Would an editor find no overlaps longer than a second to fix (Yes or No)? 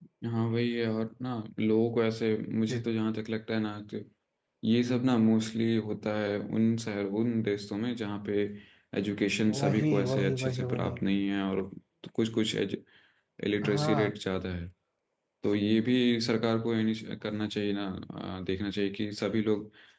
No